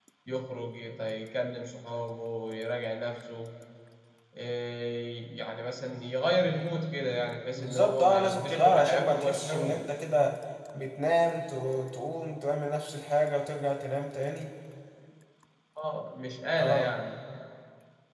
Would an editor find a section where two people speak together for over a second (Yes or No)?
Yes